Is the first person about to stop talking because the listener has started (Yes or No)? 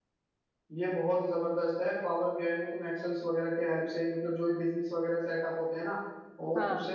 No